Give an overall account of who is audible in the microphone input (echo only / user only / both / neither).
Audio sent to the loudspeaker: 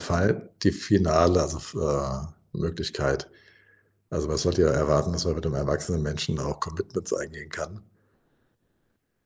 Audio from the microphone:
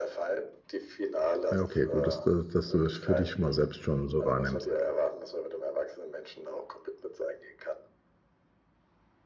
both